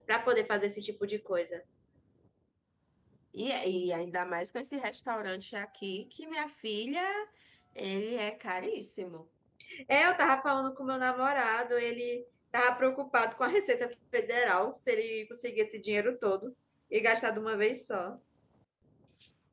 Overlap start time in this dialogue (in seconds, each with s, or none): none